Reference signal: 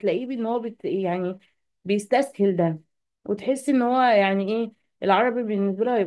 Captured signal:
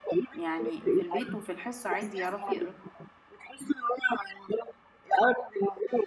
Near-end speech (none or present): present